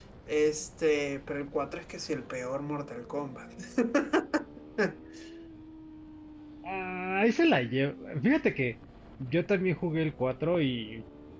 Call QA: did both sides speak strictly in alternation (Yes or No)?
Yes